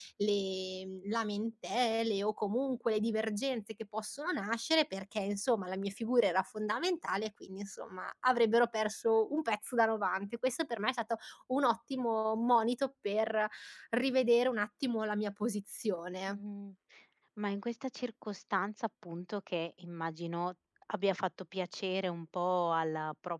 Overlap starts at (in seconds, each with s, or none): none